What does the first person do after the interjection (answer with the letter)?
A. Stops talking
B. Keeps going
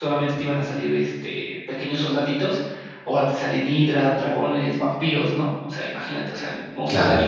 A